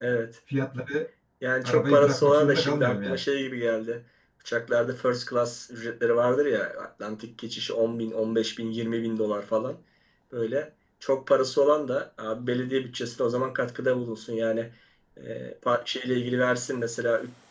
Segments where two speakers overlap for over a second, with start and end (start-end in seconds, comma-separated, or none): 1.6-3.2